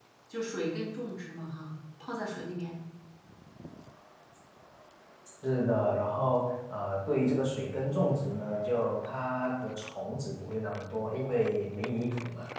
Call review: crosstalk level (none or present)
none